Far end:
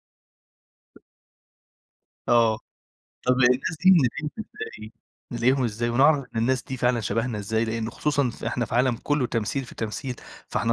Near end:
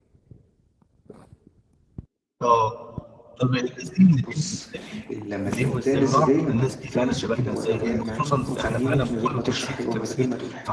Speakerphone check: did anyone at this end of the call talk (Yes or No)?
Yes